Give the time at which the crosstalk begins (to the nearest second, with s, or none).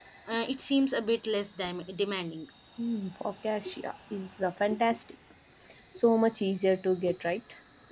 none